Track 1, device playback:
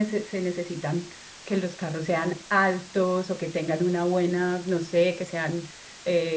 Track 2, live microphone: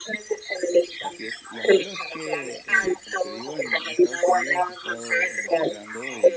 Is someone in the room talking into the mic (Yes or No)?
Yes